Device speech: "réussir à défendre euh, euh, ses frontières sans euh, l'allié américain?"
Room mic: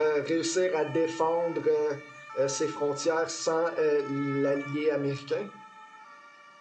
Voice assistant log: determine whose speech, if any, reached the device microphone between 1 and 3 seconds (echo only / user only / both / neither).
echo only